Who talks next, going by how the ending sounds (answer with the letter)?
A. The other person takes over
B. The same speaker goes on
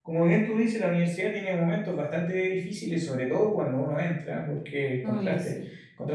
B